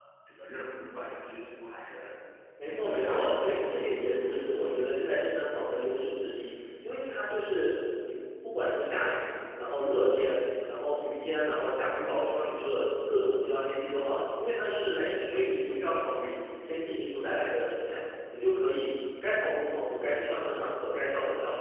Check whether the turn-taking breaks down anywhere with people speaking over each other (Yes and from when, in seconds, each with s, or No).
Yes, from 2.7 s